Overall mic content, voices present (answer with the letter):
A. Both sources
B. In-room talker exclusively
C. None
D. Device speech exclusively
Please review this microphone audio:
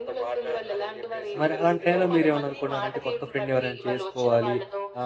A